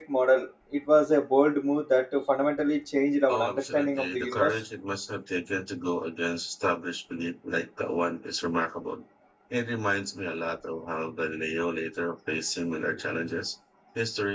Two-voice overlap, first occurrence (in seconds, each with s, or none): 3.3 s